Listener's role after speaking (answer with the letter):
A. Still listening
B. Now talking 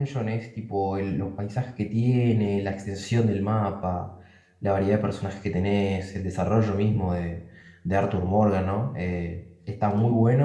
A